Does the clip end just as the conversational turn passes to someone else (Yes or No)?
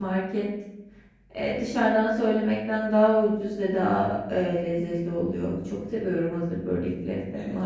Yes